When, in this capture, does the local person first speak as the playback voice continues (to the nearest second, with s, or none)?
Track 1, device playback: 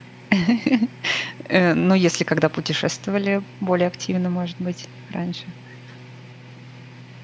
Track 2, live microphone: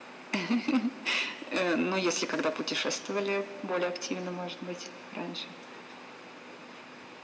none